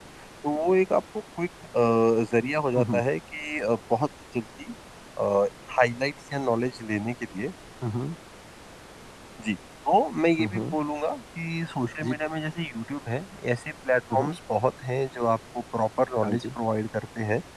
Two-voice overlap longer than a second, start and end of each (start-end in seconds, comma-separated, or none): none